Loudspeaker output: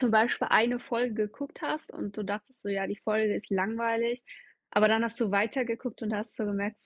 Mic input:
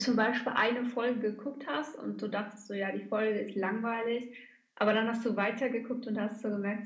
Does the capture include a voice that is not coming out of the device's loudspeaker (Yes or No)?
No